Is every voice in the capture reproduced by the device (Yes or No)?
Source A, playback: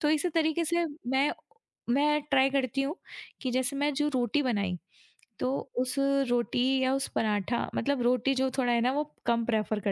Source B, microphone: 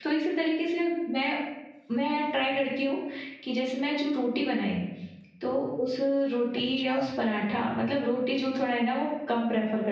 No